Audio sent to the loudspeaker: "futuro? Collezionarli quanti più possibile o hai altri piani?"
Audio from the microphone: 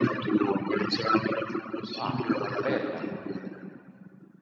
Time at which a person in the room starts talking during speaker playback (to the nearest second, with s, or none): 2 s